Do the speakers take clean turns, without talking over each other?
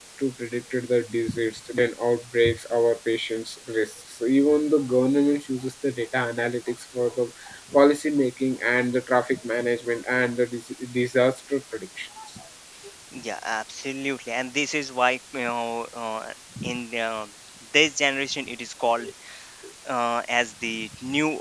Yes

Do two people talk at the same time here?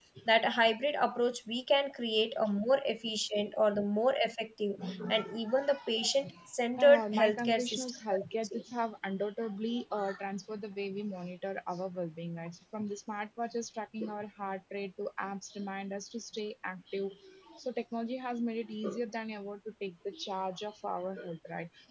Yes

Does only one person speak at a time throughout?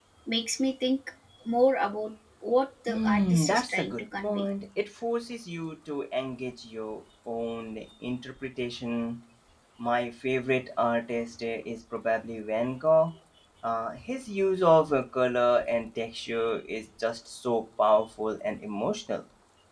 No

